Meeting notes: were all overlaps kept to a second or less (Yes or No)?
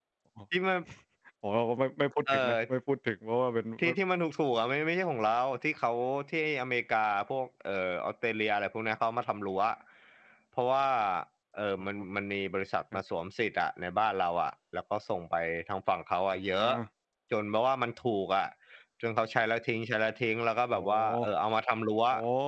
Yes